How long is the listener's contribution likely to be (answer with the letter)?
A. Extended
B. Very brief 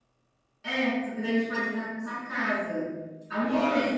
B